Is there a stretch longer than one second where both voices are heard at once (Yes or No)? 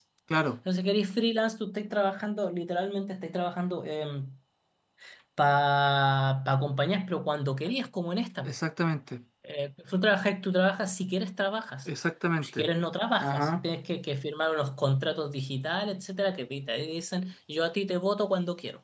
No